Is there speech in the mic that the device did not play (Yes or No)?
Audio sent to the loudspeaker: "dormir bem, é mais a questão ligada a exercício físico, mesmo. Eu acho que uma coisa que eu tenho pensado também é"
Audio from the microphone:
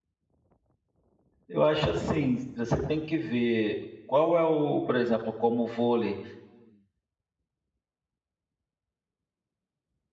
Yes